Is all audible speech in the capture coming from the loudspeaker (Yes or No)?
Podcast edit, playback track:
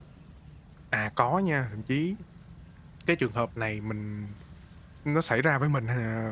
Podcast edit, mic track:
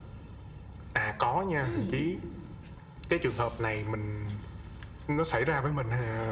No